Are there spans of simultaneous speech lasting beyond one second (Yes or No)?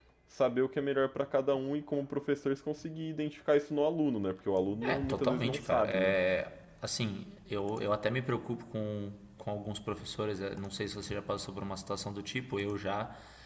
Yes